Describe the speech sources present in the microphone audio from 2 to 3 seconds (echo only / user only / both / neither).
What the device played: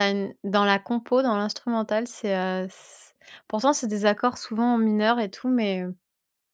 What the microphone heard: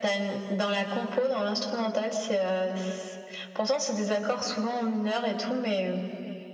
echo only